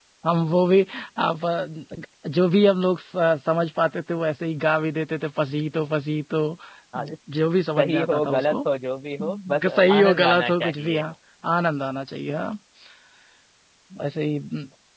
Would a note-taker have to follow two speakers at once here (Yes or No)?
Yes